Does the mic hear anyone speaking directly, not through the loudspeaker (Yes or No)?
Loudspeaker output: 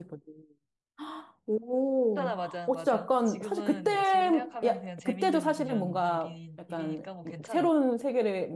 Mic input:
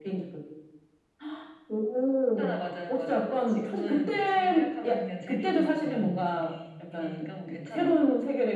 No